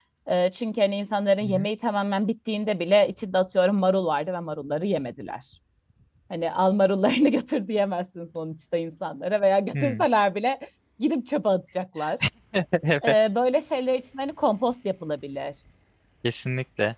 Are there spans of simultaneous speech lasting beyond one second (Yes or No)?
No